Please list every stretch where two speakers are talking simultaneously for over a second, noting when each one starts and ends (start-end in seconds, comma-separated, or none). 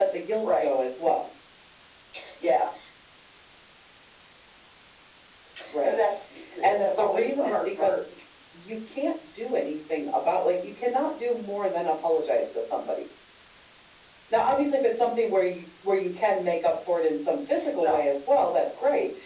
6.6-8.0